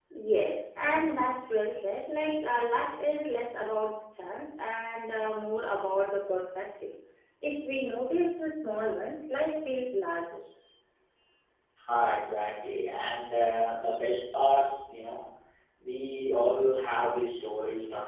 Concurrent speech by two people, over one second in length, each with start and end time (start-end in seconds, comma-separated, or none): none